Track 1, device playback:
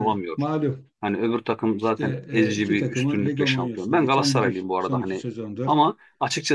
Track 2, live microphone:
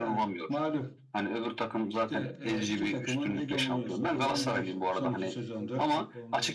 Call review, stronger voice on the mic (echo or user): echo